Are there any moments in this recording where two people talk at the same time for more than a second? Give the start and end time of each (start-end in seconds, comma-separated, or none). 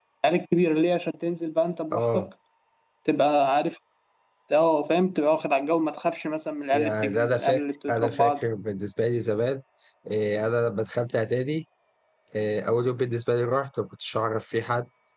6.7-8.3